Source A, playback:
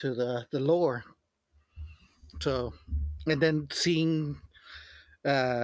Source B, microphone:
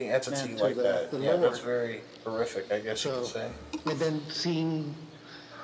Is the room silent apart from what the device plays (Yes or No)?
No